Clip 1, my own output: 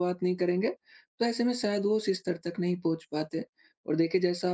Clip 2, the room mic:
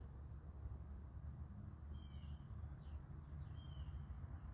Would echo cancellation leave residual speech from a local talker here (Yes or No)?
No